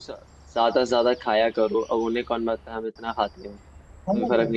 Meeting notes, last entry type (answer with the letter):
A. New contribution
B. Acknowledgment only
A